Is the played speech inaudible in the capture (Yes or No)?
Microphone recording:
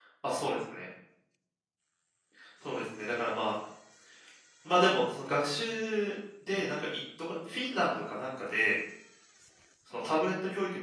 Yes